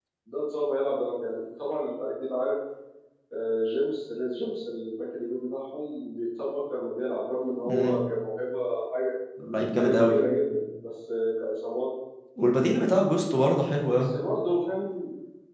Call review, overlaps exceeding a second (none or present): none